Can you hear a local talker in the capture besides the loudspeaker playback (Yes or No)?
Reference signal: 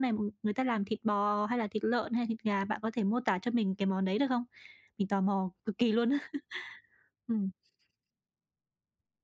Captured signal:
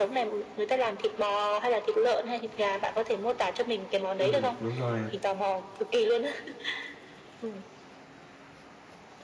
Yes